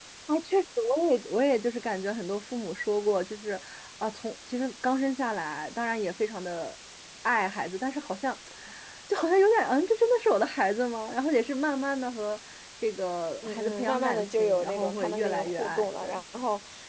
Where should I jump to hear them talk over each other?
13 s

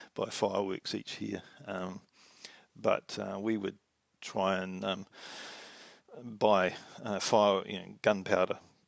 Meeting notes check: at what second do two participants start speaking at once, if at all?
none

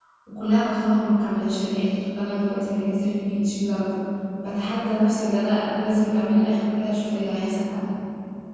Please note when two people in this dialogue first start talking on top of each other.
none

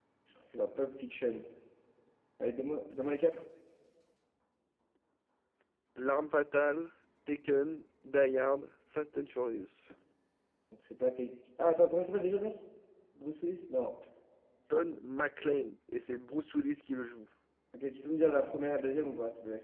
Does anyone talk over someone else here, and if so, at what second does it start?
none

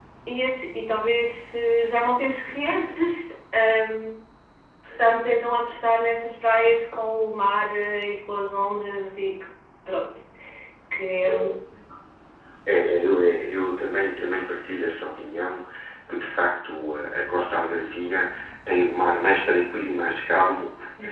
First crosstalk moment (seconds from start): none

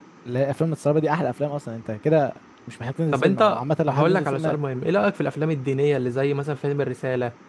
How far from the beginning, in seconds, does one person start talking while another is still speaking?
3 s

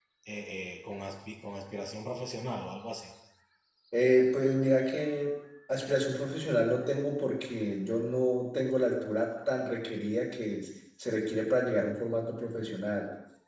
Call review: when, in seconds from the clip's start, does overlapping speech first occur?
none

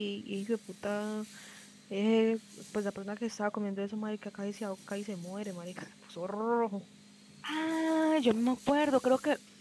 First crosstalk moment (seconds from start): none

